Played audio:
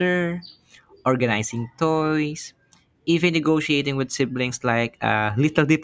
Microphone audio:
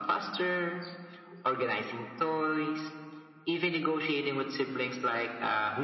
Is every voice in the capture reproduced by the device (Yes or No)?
Yes